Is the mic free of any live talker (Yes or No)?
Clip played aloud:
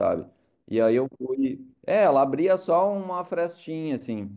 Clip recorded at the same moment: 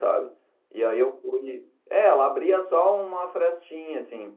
Yes